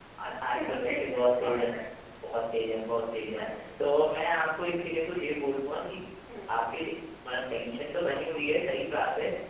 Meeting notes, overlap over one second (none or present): present